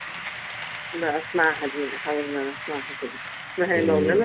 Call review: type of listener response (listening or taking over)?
taking over